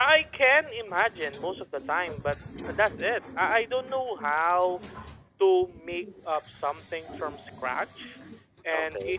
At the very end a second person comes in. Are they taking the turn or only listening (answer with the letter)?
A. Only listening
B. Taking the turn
A